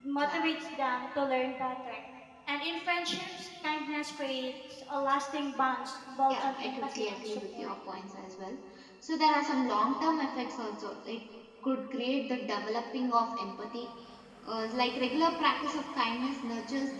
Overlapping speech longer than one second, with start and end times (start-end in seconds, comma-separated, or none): 6.3-7.7